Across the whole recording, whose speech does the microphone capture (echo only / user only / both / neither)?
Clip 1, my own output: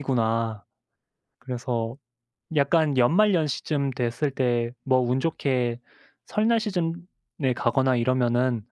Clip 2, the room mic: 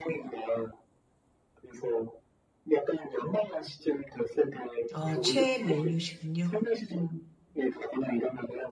both